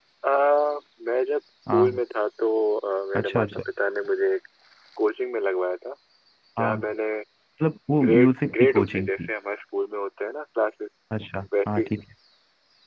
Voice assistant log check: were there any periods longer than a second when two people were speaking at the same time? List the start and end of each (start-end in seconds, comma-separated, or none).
8.0-9.3